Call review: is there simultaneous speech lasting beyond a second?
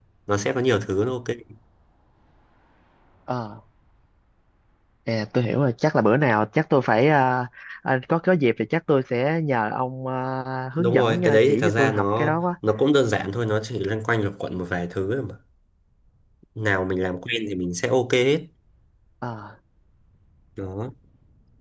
Yes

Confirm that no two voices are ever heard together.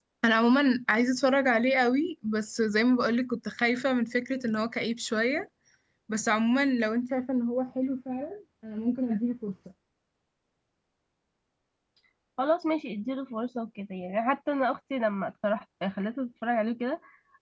Yes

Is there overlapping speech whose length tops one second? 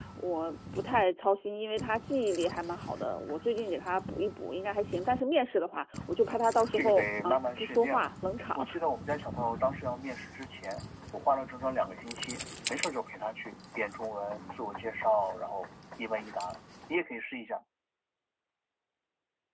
Yes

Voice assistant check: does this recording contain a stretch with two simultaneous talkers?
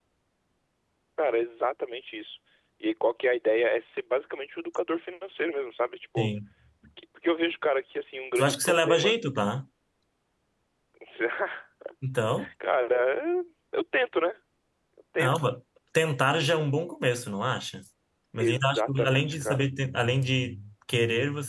Yes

